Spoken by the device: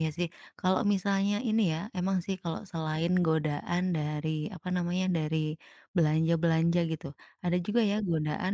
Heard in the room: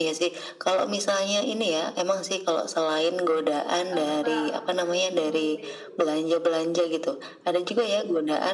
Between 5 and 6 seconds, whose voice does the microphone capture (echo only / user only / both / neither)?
both